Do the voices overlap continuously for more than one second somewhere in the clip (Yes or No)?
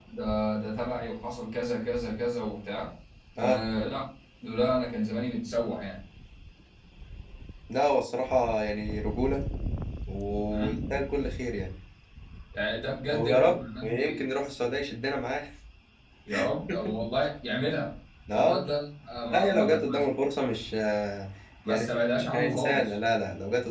Yes